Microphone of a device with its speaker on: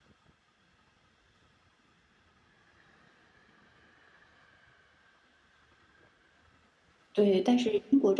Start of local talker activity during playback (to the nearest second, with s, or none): 7 s